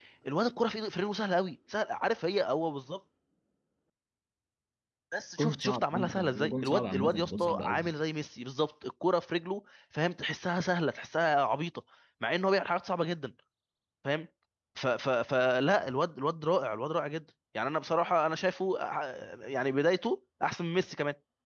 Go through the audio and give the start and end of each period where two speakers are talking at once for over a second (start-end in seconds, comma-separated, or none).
5.4-7.9